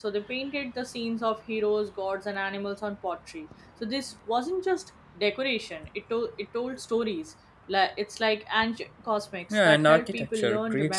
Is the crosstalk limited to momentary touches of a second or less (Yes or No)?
No